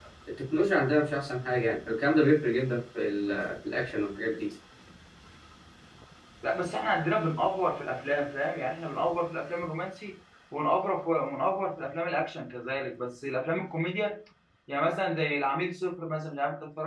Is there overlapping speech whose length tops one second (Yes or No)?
No